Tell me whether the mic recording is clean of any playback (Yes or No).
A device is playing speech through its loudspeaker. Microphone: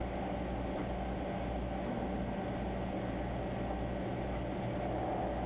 Yes